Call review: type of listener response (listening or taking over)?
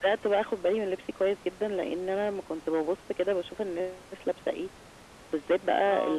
listening